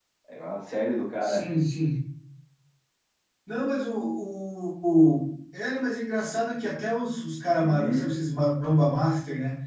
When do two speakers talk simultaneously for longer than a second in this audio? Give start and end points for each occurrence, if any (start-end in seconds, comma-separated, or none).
none